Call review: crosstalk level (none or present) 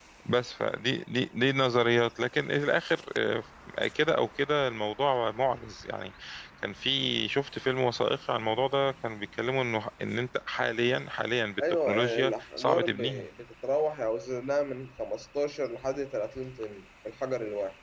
present